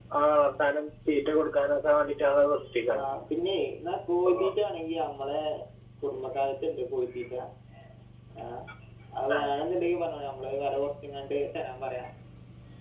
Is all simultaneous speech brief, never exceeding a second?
Yes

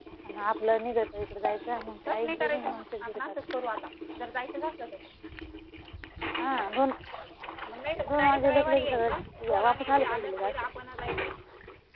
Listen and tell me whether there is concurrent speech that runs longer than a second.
Yes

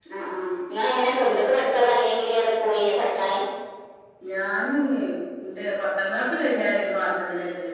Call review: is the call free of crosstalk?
Yes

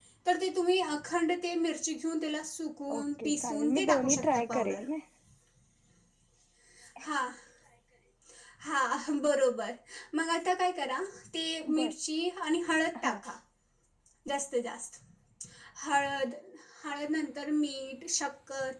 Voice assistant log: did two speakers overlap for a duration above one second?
Yes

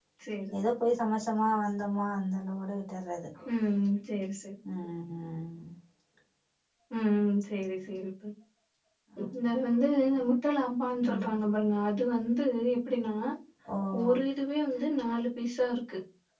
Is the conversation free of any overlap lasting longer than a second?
Yes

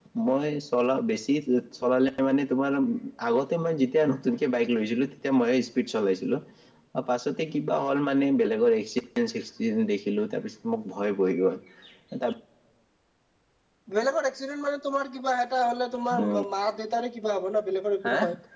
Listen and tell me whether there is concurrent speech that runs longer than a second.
No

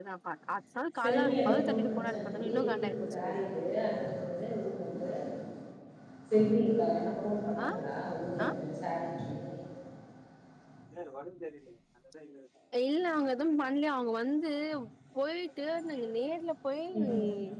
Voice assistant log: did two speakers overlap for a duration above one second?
Yes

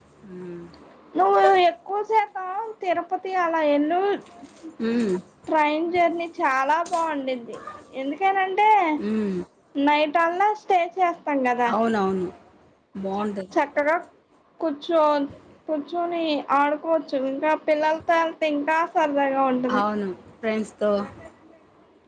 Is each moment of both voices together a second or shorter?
Yes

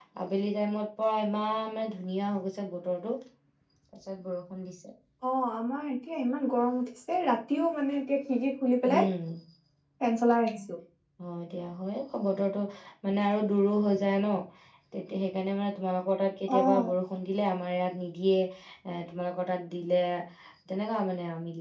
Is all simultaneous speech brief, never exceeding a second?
Yes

